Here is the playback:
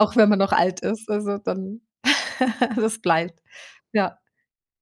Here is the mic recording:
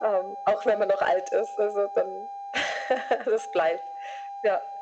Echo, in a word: present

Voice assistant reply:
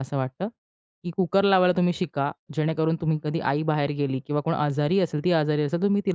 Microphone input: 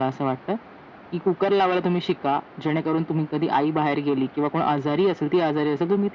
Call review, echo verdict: present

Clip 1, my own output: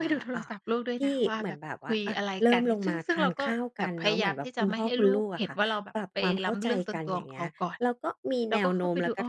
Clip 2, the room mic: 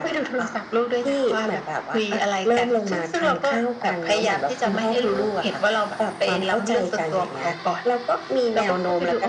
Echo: present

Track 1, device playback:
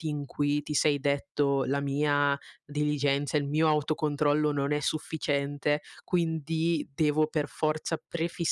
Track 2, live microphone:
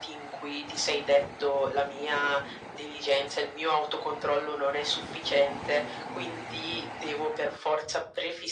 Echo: present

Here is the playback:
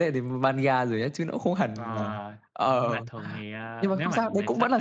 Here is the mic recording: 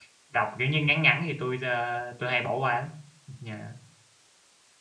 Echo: none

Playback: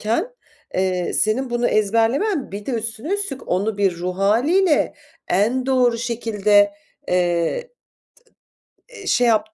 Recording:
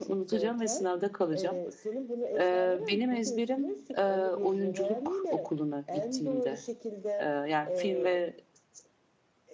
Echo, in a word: present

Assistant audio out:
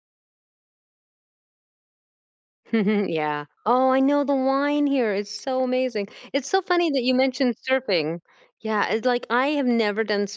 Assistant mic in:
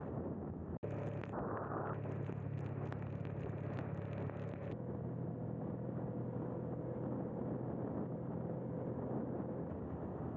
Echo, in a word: none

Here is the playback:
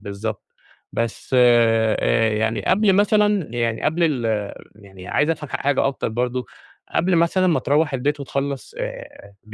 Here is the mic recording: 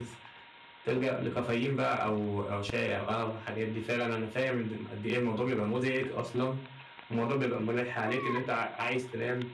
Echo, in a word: none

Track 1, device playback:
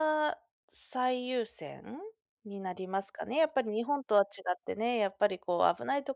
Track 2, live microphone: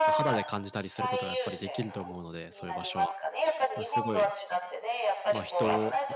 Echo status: present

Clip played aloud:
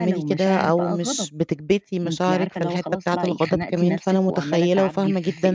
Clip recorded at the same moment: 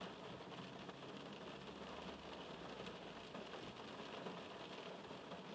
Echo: none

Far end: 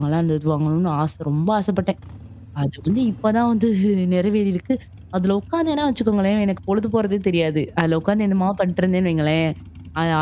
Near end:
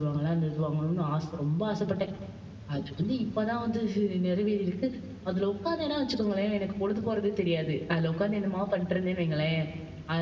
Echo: present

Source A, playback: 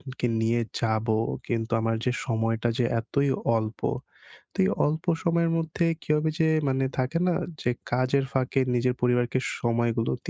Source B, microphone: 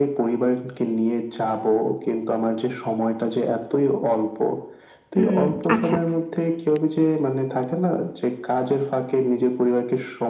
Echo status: present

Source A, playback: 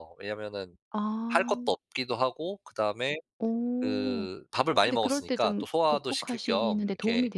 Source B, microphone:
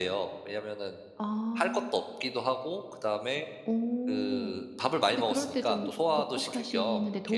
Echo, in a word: present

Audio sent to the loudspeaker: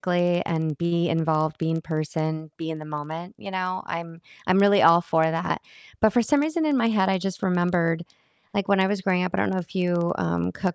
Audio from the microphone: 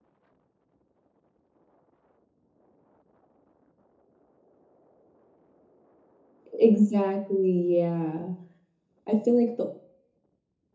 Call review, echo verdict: none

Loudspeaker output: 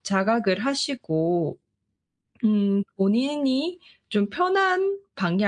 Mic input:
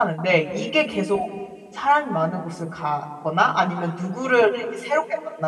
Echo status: none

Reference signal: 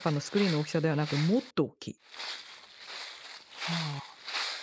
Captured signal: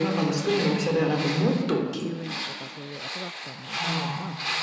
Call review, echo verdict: present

